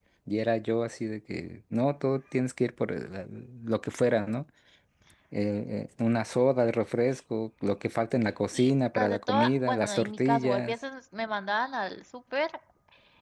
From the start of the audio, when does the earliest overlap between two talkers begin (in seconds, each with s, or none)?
8.5 s